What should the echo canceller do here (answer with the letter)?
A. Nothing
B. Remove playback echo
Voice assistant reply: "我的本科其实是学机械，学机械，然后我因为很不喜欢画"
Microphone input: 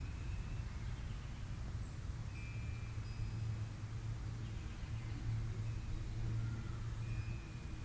A